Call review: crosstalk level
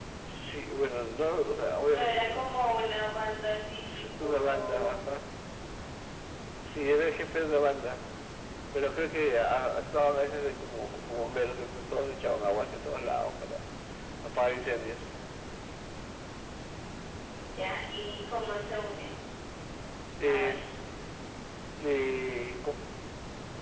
present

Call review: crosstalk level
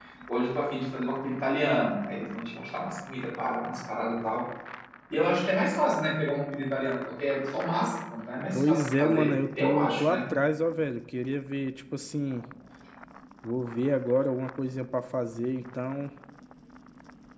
present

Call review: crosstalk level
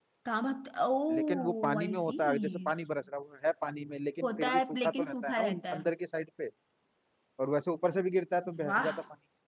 present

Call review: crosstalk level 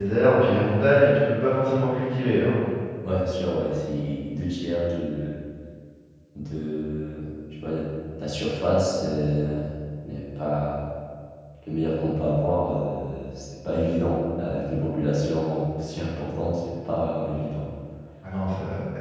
none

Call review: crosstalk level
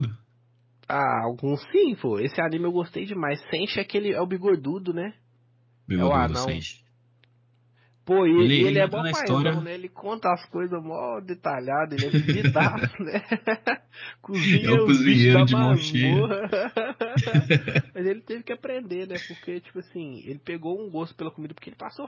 present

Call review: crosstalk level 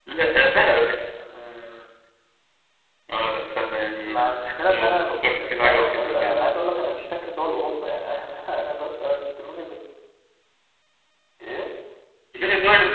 present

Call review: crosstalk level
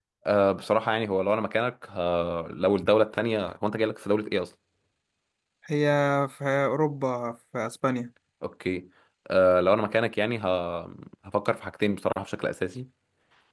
none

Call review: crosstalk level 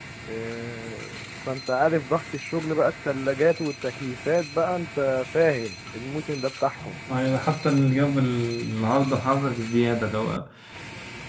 none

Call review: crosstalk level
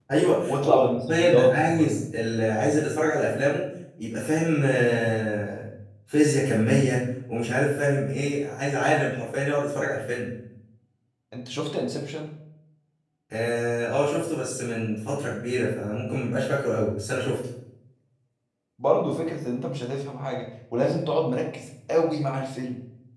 present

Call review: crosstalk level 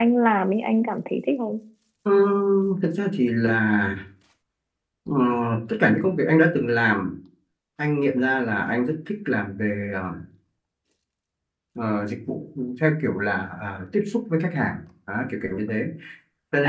none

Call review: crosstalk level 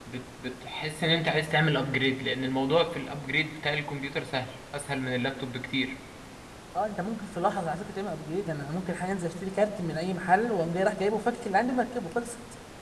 none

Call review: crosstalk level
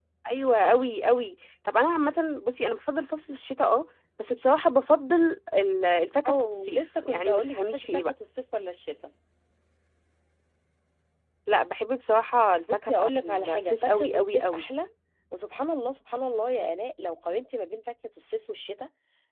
present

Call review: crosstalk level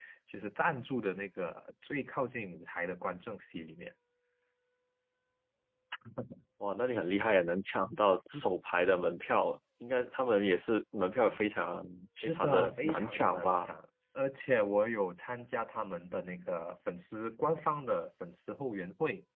present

